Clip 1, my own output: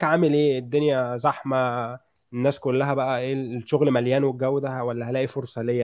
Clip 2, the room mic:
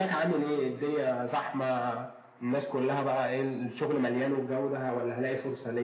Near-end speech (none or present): none